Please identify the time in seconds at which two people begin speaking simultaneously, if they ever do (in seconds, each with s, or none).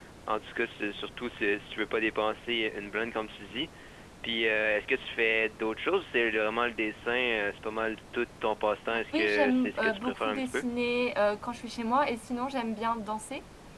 9.1 s